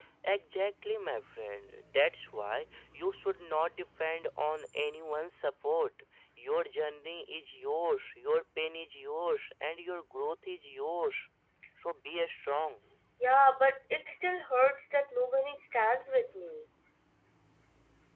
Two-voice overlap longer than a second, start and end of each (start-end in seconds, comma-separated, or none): none